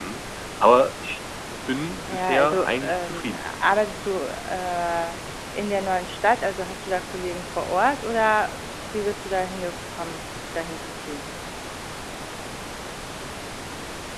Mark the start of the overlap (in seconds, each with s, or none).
2.1 s